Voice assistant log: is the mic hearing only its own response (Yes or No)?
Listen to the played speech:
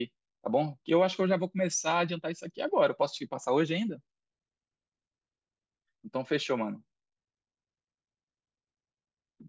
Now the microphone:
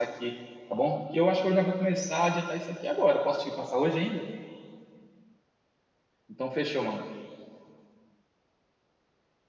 Yes